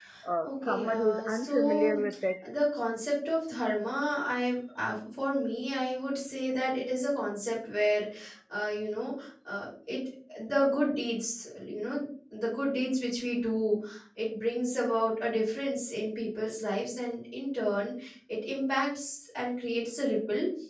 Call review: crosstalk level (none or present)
present